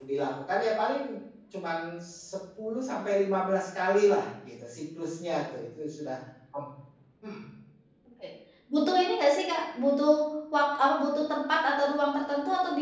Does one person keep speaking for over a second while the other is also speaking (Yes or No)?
No